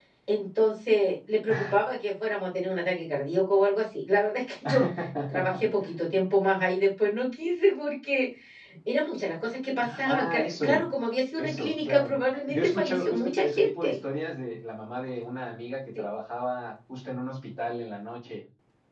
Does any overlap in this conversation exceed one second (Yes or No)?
Yes